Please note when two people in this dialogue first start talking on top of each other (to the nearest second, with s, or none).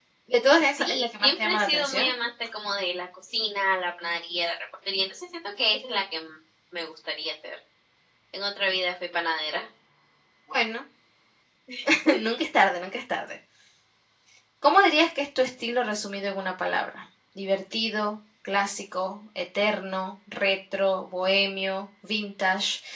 1 s